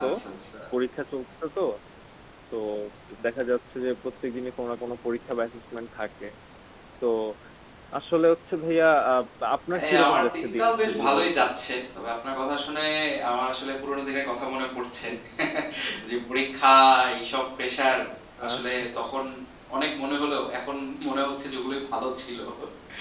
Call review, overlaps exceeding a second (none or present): present